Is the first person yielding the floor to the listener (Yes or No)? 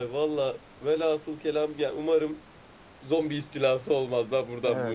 Yes